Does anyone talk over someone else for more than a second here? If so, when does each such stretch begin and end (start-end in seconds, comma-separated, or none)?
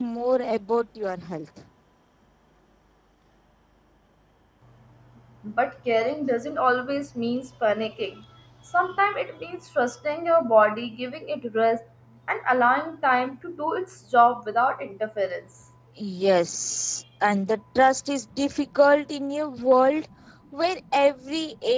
none